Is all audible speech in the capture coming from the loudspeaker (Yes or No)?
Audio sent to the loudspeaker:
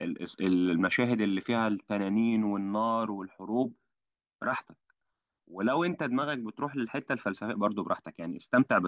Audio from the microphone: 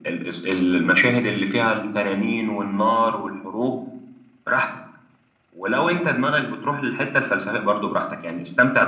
Yes